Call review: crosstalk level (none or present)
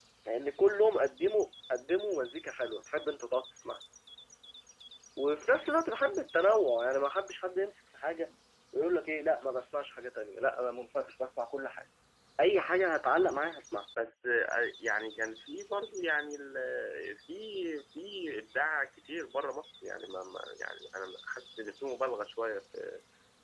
none